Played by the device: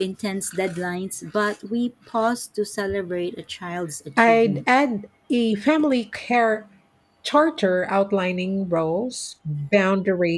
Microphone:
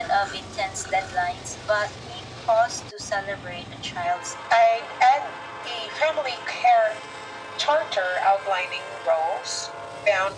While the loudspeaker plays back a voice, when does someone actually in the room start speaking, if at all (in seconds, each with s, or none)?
none